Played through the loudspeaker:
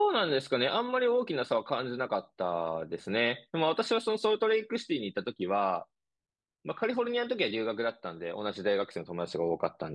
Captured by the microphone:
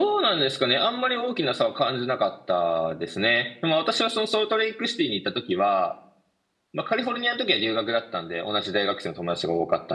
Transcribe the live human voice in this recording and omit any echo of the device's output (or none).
none